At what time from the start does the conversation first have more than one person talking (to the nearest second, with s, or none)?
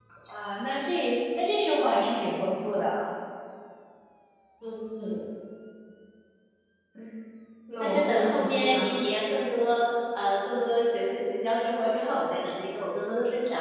8 s